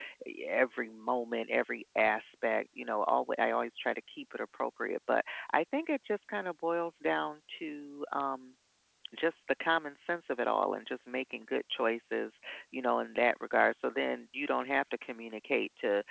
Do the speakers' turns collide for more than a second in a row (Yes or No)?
No